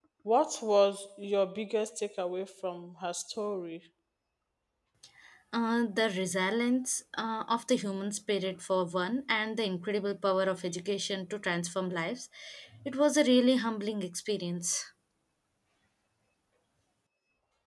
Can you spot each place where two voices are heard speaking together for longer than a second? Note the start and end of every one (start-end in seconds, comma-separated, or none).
none